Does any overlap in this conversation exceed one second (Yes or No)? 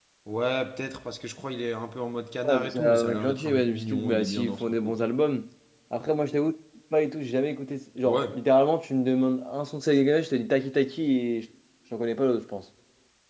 Yes